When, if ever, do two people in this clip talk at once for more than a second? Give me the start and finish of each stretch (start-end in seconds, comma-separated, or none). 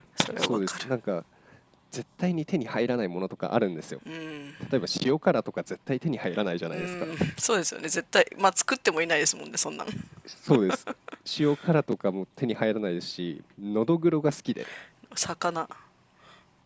none